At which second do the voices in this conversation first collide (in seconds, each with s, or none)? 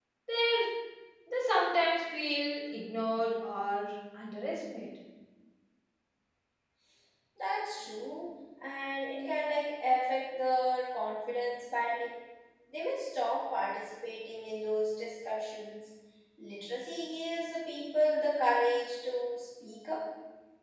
none